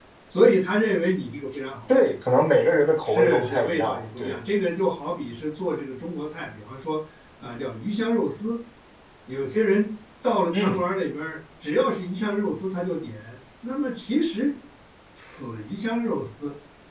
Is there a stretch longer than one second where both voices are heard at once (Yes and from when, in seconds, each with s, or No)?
Yes, from 3.0 s